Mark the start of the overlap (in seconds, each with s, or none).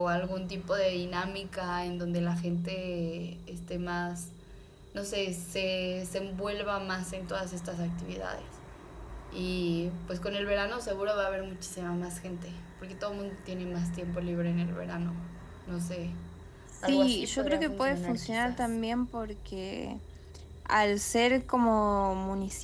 16.8 s